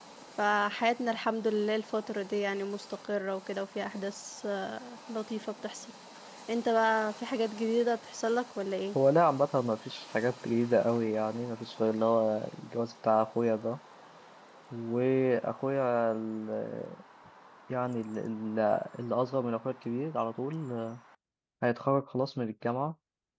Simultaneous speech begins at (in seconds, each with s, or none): none